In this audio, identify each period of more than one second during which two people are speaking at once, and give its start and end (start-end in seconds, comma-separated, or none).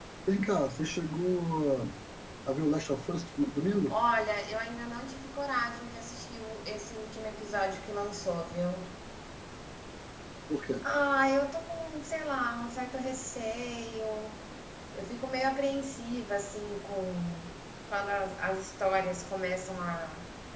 none